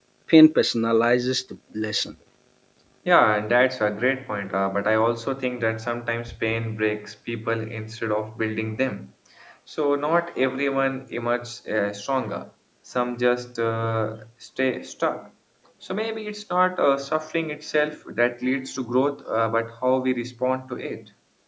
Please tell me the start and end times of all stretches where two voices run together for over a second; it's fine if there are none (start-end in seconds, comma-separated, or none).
none